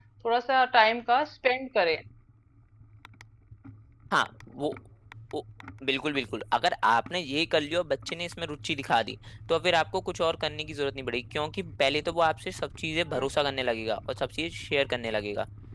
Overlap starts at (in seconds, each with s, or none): none